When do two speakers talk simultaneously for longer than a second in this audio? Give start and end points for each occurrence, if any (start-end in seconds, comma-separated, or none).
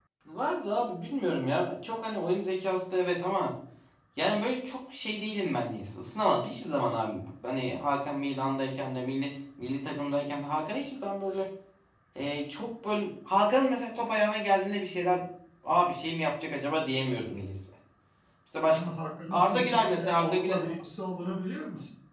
19.3-20.7